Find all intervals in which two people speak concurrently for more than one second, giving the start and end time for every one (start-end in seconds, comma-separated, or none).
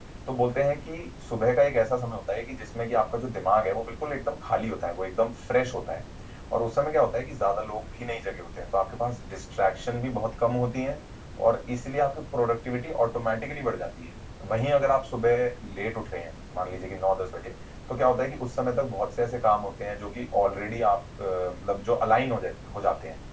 none